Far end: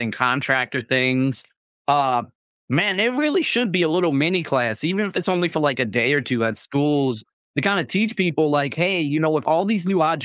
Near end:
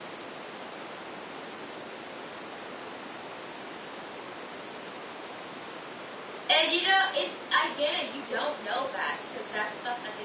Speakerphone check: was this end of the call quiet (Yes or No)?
No